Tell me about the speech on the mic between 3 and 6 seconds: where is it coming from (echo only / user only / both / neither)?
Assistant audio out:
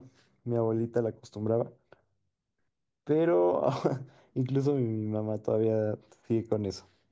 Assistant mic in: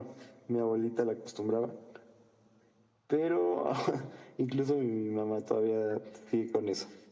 echo only